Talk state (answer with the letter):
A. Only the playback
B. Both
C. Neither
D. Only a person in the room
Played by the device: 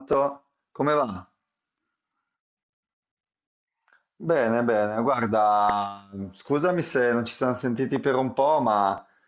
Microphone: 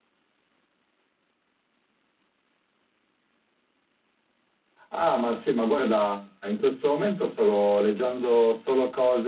D